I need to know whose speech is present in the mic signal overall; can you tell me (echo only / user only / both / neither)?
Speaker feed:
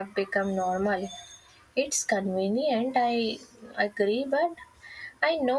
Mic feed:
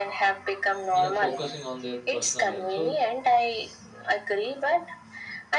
both